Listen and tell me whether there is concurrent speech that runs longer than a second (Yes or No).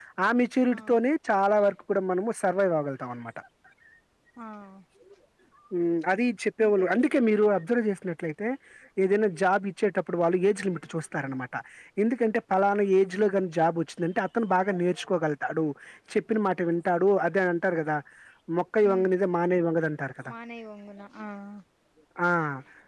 No